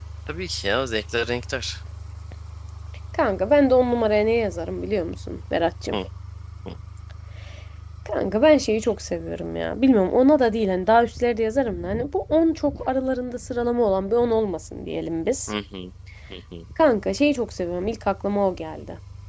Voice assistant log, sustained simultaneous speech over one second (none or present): none